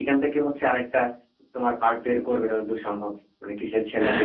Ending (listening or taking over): taking over